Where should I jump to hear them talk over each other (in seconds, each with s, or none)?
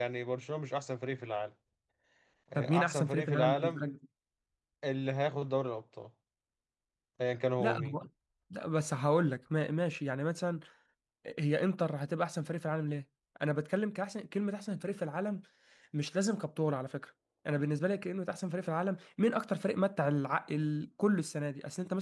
2.5 s